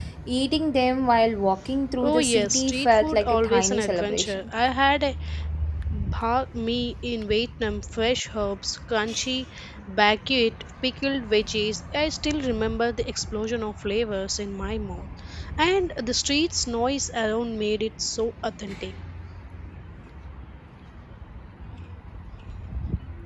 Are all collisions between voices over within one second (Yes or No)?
No